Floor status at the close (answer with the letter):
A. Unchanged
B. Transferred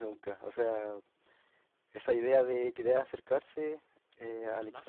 A